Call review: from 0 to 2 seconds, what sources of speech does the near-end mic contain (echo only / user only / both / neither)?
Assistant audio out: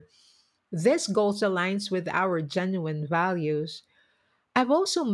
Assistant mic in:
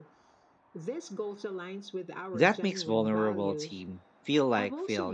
echo only